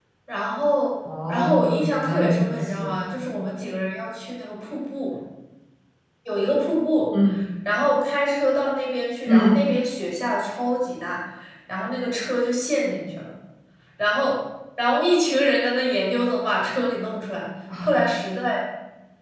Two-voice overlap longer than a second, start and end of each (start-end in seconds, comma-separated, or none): 1.3-2.9